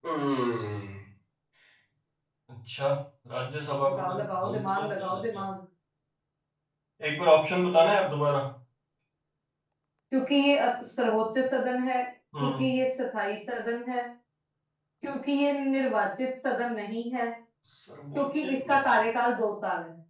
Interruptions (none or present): present